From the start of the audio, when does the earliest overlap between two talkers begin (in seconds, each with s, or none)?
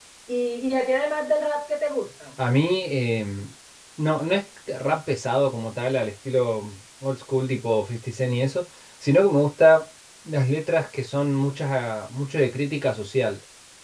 none